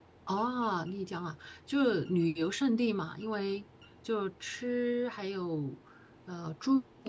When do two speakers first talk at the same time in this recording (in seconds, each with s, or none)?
none